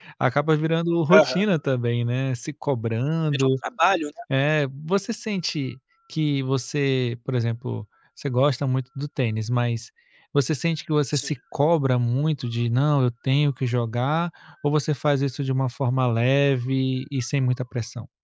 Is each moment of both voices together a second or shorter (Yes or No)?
Yes